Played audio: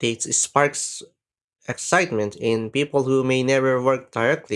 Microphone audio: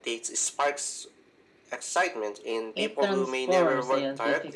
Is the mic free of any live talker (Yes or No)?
No